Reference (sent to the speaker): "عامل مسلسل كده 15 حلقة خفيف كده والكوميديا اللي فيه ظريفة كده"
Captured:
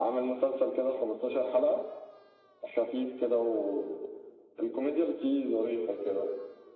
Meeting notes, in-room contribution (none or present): none